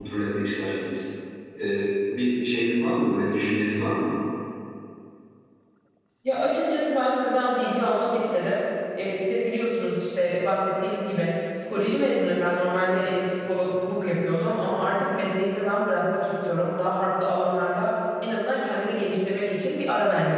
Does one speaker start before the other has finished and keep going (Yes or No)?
No